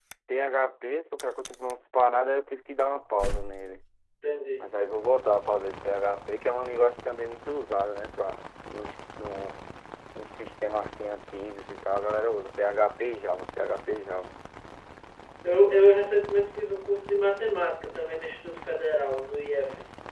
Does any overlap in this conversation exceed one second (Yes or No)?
No